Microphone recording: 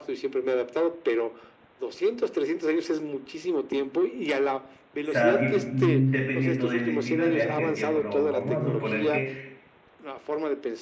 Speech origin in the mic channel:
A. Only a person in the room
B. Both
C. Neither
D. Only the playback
B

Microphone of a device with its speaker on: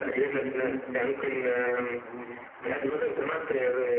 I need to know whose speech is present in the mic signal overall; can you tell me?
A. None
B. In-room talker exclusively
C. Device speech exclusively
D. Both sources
D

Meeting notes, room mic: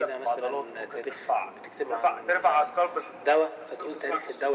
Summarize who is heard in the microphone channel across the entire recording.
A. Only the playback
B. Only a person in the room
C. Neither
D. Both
A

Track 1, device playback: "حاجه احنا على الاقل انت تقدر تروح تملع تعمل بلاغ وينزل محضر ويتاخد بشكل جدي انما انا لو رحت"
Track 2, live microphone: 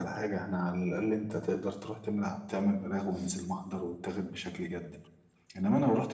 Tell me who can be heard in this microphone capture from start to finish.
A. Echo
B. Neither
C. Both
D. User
A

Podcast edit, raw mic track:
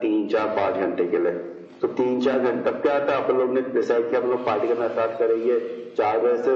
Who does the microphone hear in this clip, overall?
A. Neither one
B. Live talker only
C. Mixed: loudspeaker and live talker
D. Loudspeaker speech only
D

